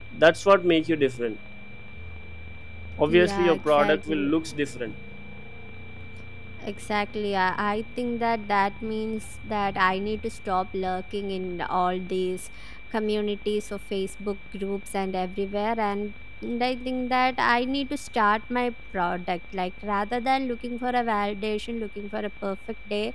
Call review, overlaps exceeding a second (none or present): present